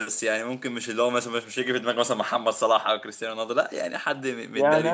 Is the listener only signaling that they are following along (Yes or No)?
No